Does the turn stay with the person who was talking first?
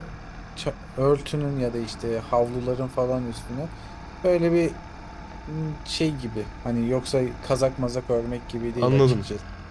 No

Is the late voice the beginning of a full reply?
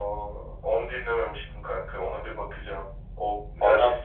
No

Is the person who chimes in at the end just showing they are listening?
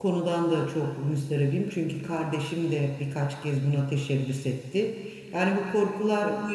Yes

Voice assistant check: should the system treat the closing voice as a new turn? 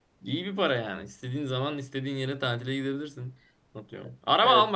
No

